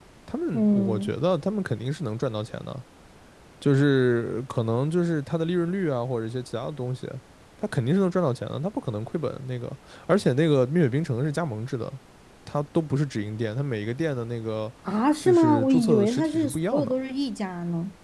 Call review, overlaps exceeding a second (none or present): present